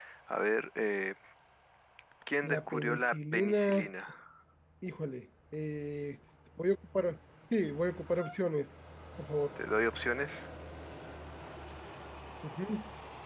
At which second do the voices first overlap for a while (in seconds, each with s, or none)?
2.4 s